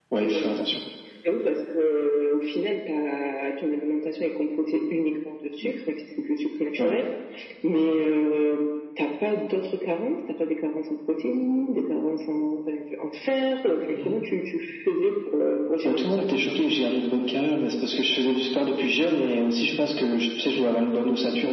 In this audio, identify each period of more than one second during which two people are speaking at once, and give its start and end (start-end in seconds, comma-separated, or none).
none